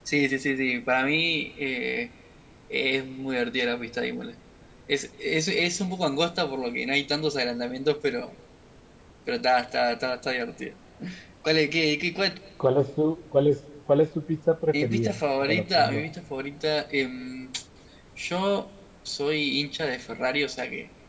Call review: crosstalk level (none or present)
present